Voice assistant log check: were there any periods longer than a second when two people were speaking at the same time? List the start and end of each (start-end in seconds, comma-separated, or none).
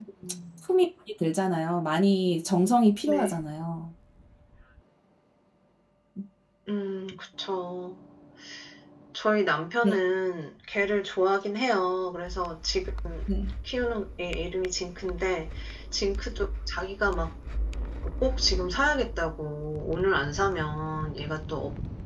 none